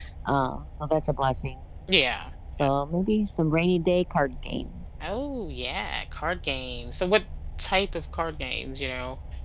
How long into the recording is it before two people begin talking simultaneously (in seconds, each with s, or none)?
none